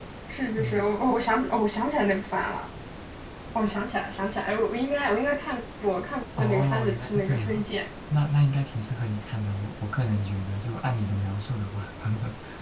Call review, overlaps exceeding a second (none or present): present